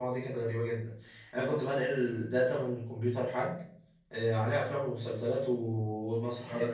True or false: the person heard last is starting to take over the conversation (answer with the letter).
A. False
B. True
A